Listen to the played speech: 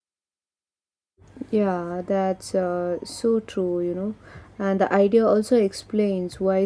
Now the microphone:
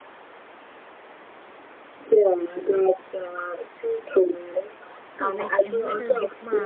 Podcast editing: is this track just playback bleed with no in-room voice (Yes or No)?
No